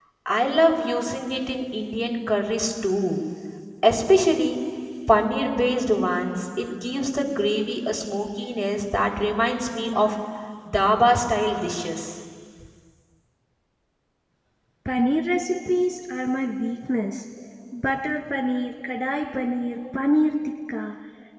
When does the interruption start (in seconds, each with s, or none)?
none